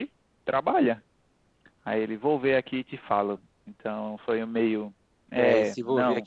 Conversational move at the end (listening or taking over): taking over